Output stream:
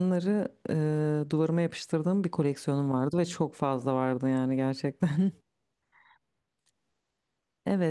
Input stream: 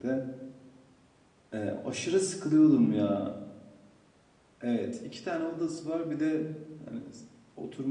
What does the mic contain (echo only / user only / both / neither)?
user only